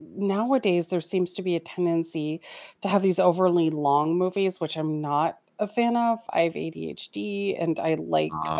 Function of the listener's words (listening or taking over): listening